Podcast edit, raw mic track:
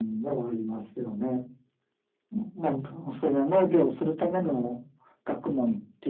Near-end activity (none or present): none